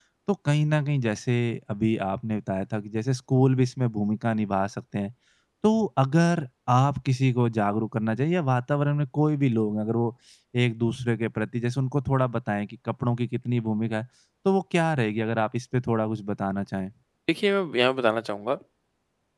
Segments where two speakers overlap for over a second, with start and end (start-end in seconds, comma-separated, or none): none